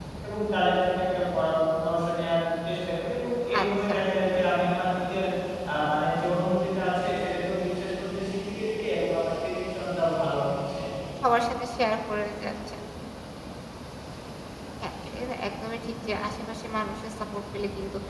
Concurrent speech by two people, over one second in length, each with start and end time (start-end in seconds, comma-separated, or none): none